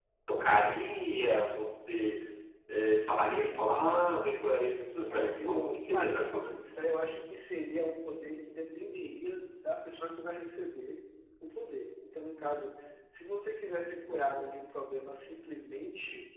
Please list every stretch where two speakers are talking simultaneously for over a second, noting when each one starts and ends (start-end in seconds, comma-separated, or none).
5.1-6.5